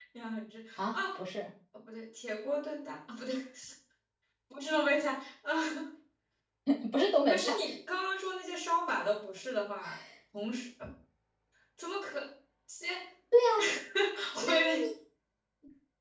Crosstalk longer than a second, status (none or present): none